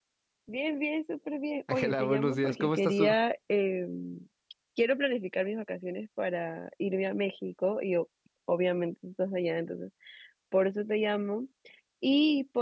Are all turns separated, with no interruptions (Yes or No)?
No